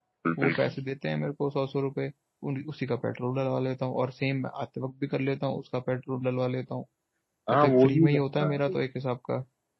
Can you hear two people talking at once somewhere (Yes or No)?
Yes